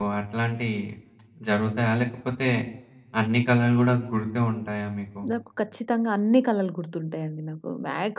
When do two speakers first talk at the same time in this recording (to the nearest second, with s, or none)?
none